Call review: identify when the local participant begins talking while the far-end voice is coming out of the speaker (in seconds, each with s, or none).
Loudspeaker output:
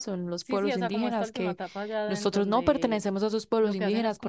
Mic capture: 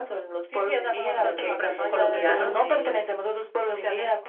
1.1 s